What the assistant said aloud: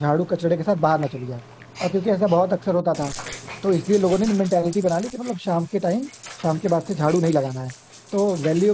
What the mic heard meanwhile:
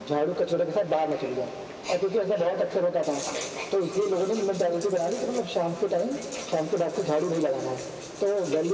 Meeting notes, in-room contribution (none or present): none